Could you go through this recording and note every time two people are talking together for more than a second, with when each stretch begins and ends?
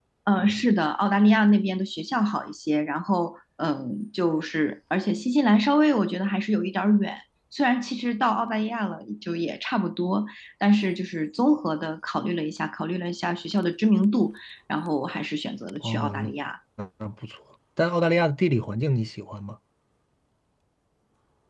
none

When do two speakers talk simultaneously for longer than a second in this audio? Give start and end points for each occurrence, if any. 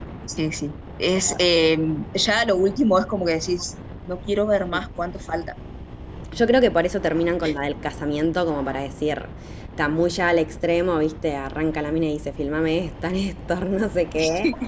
none

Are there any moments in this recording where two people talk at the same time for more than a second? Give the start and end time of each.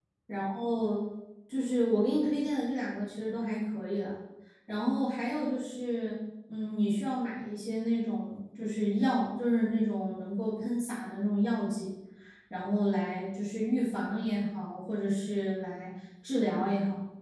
none

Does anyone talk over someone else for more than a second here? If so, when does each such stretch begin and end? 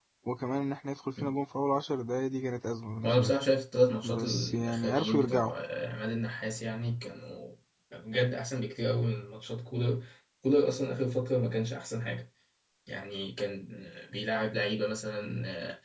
4.0-5.5

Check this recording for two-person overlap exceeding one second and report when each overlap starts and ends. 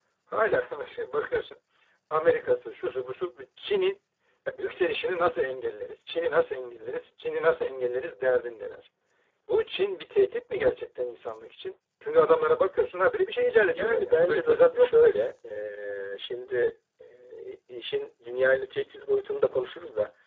13.8-15.0

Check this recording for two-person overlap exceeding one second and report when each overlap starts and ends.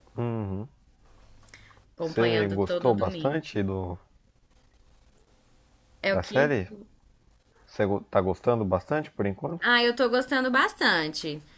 2.1-3.4

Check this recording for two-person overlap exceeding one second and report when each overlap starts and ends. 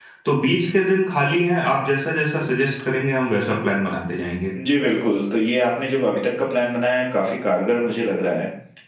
none

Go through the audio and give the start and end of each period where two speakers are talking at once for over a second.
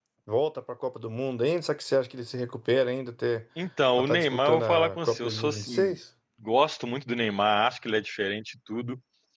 3.9-6.0

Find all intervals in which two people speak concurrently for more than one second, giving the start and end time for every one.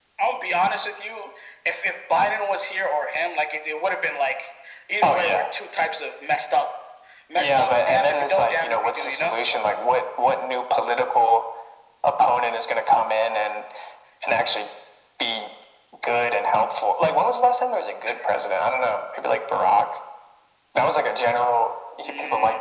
7.3-9.3

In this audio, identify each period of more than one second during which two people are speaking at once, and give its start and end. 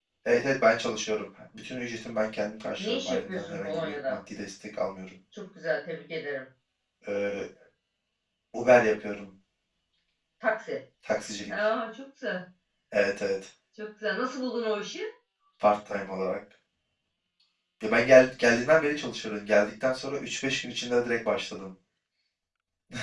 2.8-4.2

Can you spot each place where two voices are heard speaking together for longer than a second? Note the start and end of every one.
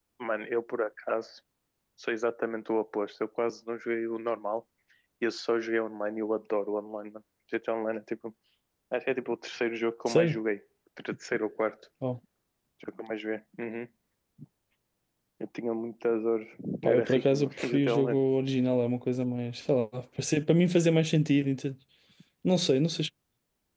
16.8-18.2

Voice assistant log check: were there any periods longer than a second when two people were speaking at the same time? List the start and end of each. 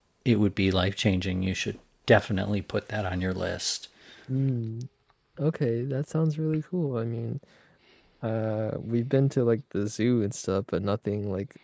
none

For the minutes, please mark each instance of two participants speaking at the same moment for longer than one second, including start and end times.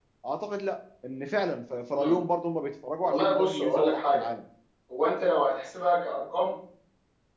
3.0-4.2

